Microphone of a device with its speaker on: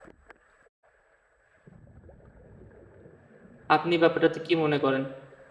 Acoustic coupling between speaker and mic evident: No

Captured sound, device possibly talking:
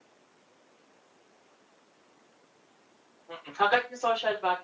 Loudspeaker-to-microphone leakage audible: No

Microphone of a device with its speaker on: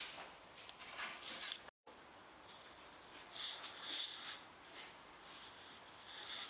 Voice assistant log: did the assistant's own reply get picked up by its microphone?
No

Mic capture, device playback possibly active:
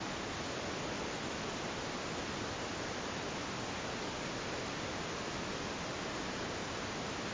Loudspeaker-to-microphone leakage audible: No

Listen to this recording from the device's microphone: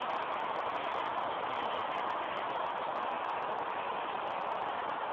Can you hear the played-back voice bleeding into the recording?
No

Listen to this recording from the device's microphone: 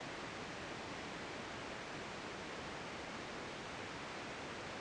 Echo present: No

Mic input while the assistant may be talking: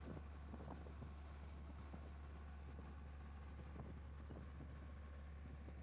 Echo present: No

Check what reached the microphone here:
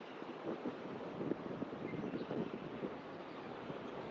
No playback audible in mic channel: Yes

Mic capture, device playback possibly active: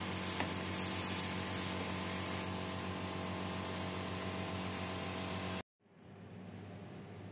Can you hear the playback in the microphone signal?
No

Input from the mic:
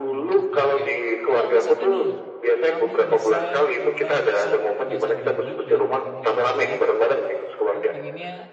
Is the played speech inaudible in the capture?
No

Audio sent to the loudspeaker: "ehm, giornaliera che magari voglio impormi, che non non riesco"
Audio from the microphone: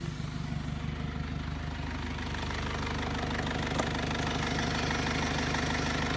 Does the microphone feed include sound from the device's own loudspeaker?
No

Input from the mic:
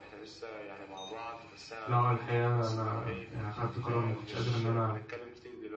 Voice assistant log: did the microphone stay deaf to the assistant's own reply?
No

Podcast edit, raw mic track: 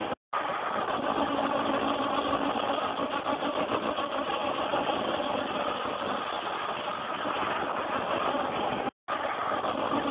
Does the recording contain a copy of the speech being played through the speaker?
No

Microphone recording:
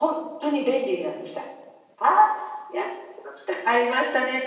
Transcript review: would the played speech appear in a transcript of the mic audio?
No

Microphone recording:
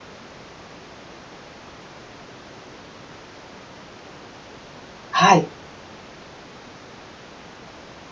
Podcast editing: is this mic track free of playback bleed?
Yes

